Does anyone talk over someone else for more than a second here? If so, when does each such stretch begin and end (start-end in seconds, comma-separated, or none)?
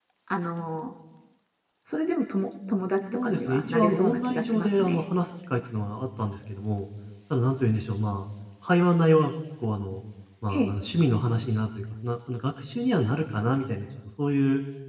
3.1-5.0